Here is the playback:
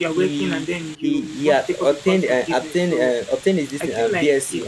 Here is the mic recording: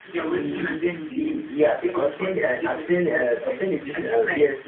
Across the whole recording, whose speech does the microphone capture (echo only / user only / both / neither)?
both